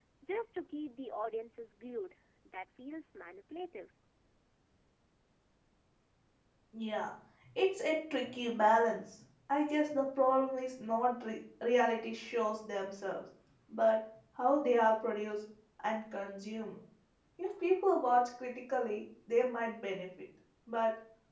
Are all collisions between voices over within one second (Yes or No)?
Yes